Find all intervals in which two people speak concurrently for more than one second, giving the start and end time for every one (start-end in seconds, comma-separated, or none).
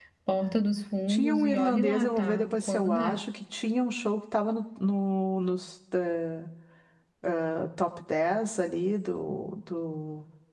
1.1-3.2